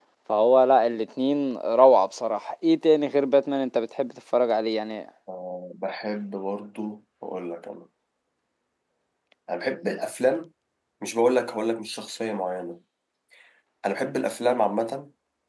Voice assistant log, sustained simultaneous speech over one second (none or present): none